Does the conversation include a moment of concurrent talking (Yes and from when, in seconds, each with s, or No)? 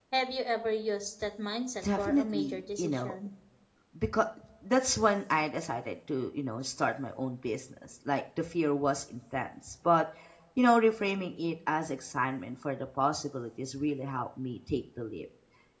Yes, from 1.8 s